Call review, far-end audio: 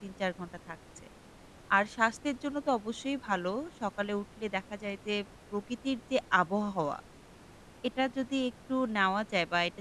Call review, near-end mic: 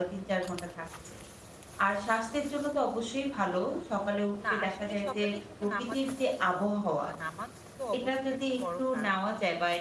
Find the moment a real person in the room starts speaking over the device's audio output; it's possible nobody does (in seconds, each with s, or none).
4.4 s